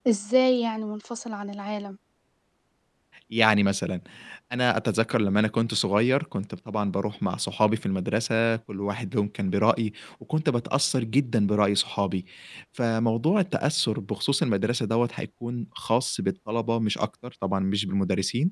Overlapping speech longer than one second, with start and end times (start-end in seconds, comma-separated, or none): none